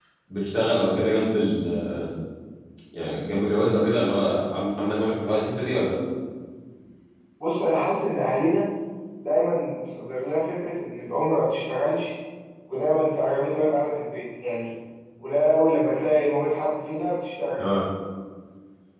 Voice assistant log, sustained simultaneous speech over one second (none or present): none